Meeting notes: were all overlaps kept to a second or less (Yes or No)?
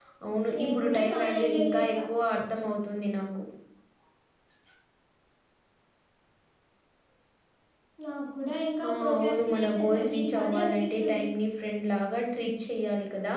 No